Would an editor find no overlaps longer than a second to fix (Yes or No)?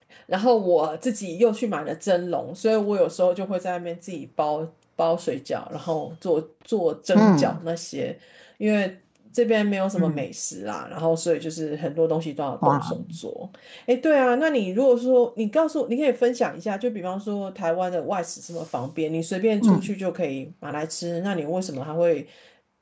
Yes